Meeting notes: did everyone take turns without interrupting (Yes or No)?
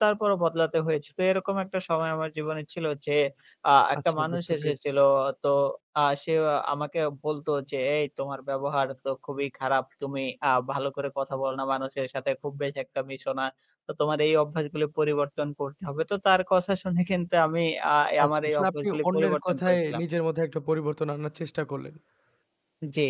No